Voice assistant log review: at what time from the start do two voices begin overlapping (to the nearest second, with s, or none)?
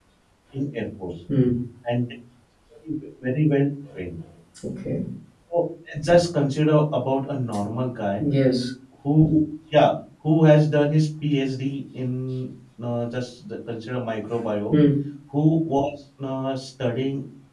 none